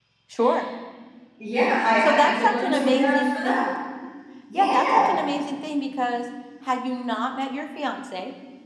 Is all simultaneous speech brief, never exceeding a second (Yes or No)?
No